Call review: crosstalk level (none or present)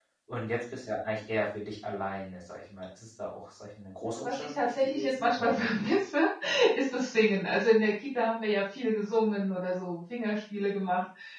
present